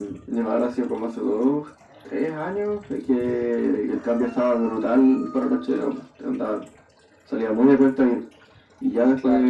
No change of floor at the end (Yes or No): Yes